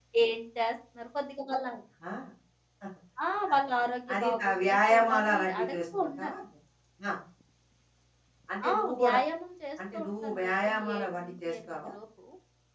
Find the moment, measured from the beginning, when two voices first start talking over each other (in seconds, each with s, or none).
4.1 s